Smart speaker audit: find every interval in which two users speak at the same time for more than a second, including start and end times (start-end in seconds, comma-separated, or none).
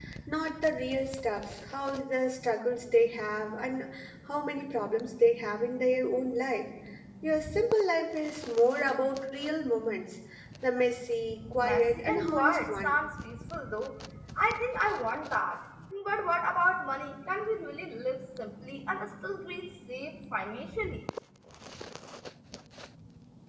11.6-13.0